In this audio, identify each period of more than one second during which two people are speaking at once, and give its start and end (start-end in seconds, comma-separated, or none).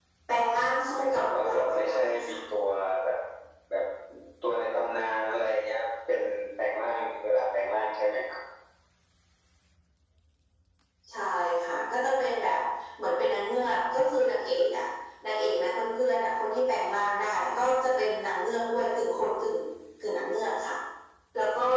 1.0-2.4